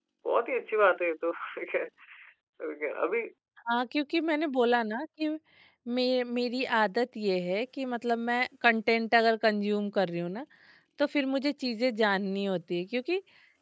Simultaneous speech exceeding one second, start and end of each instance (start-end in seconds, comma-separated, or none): none